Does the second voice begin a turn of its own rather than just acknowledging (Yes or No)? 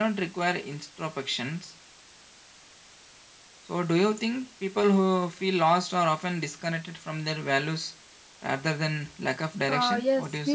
Yes